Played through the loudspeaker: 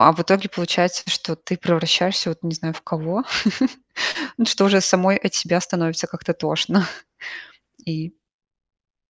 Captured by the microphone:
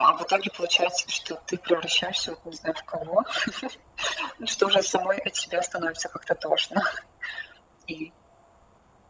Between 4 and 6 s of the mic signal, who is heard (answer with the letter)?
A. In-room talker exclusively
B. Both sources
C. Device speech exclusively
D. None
C